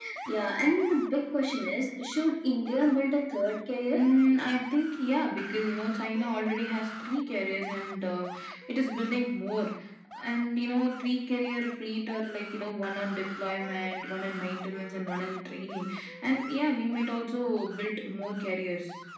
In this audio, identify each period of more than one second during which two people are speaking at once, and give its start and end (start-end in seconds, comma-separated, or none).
none